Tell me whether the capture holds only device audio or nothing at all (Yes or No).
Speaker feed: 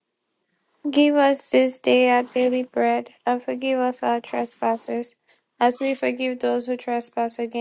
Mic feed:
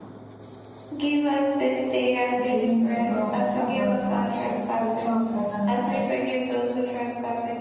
No